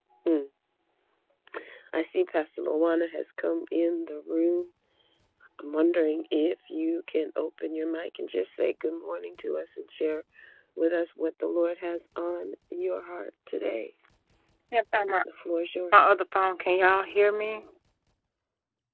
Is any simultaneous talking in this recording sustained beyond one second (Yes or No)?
No